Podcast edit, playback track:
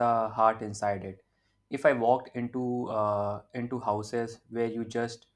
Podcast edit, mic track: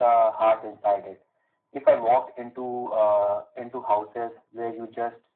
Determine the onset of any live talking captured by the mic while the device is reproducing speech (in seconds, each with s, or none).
none